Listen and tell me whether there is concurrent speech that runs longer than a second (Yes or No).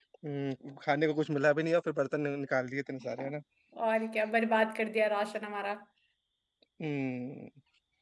No